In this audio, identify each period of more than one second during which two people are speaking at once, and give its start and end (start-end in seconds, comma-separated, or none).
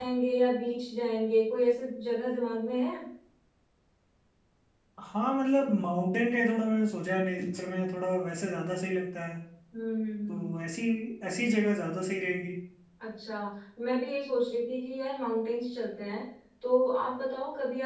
none